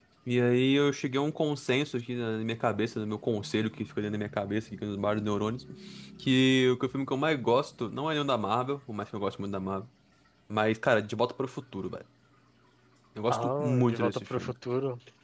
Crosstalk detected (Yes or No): Yes